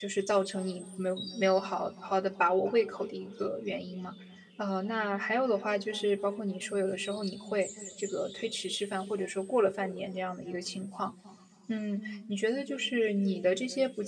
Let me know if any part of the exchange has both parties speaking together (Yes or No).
No